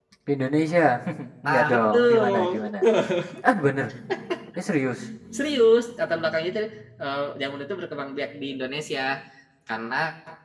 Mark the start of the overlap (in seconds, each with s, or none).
1.5 s